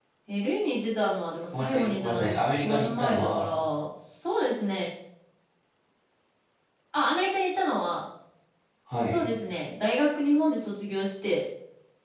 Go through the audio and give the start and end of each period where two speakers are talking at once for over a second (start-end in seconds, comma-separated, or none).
1.5-3.5